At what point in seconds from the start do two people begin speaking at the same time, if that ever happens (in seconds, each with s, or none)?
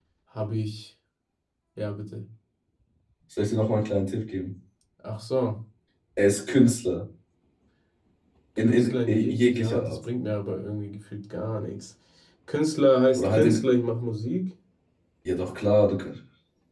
8.7 s